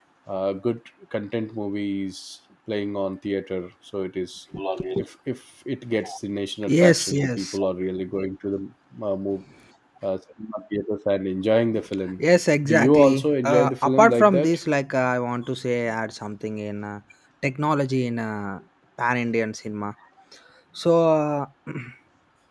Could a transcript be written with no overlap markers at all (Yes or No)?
No